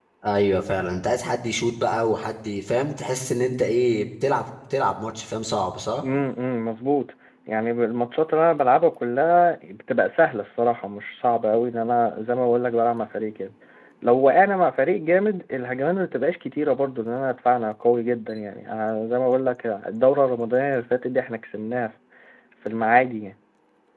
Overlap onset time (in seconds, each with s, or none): none